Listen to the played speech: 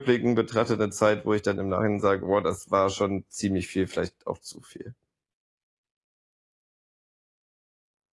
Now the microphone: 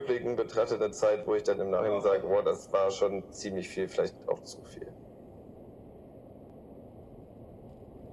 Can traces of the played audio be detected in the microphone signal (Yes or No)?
Yes